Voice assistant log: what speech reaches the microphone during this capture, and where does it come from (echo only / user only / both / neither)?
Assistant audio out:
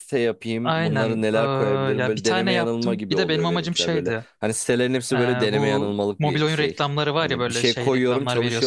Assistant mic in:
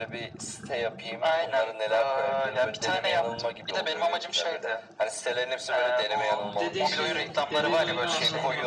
both